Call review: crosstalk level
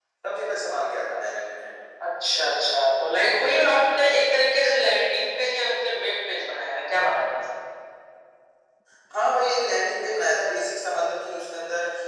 none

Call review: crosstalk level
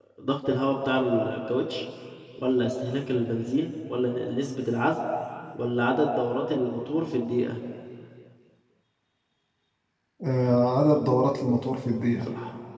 none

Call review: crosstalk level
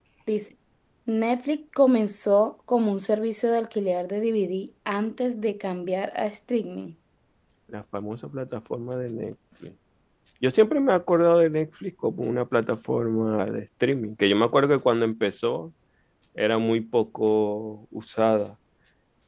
none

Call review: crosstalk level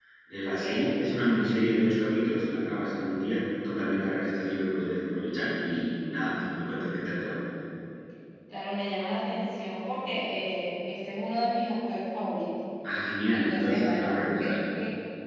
present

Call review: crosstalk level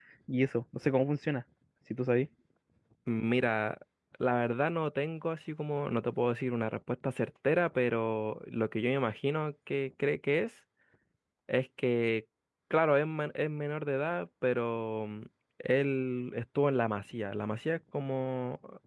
none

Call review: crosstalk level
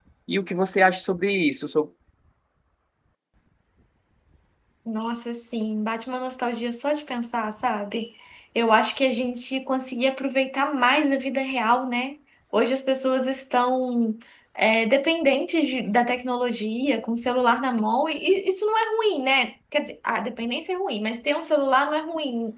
none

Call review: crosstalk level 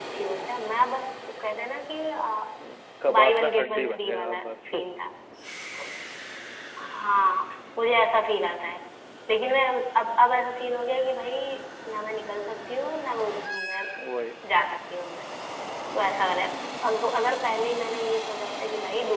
present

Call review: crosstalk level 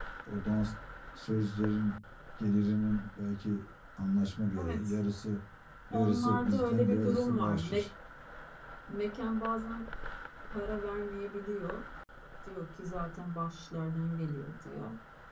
present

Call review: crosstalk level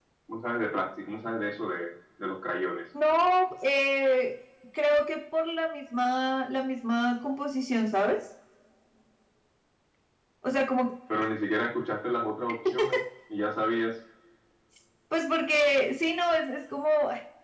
none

